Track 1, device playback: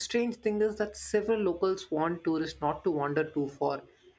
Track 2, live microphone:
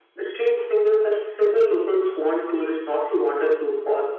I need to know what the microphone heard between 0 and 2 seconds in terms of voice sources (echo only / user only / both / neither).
echo only